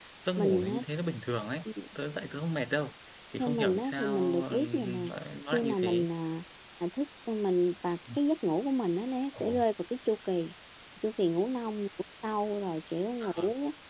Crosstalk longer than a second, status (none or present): present